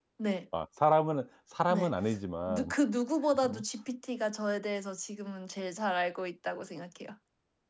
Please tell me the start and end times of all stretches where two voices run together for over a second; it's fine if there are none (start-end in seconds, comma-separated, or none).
none